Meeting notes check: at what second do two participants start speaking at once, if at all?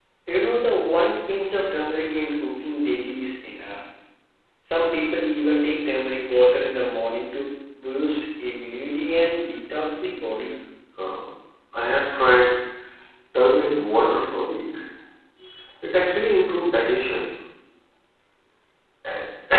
none

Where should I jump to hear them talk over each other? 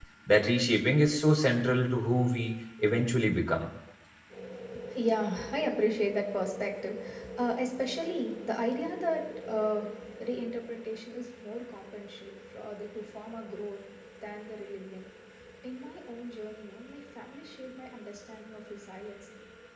none

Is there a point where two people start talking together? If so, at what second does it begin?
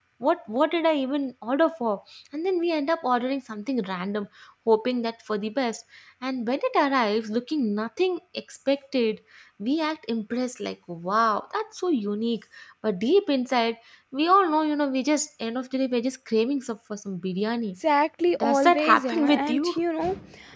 18.4 s

